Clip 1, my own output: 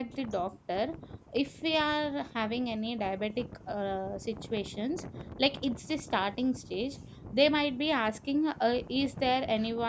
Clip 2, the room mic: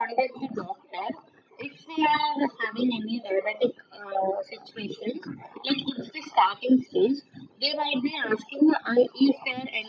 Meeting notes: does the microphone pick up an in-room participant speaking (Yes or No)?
No